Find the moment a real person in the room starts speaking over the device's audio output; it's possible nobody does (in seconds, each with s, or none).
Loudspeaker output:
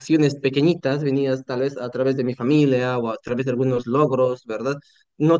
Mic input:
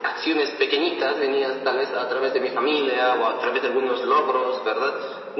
none